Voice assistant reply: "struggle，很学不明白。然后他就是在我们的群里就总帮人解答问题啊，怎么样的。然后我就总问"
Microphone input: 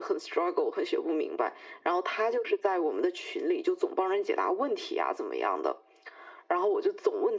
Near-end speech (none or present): none